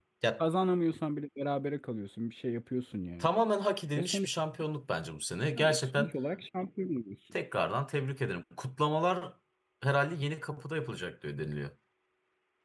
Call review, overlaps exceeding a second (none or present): none